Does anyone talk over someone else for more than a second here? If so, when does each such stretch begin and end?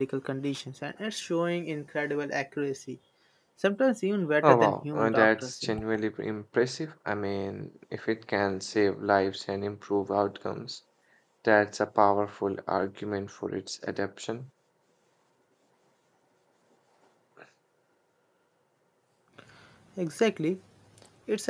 4.4-5.8

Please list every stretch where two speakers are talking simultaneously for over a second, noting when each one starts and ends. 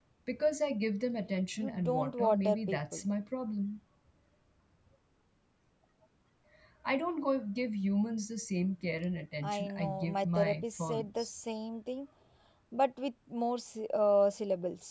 1.6-3.1, 9.4-11.3

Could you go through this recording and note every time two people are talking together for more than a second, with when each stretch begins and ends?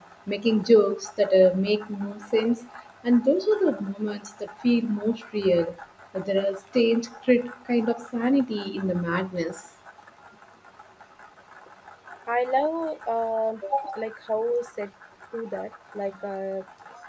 none

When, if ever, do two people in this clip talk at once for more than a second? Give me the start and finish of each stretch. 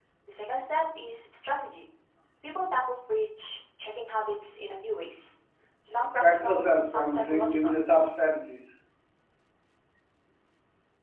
6.2-7.8

